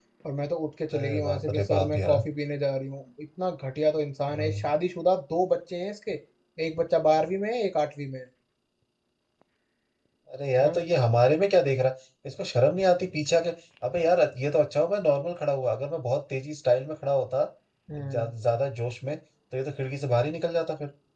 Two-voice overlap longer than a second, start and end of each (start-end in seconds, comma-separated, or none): 1.0-2.2